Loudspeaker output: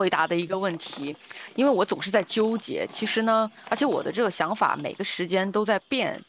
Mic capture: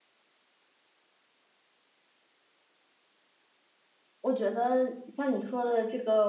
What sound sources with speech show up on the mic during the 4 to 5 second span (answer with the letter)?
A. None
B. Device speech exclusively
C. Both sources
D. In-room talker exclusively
D